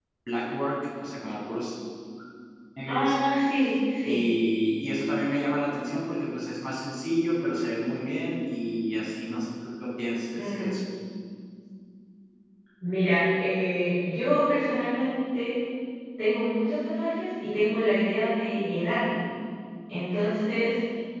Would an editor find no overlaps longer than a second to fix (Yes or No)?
Yes